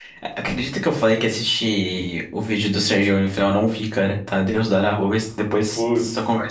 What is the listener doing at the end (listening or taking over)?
taking over